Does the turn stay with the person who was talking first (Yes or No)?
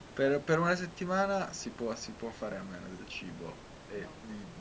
Yes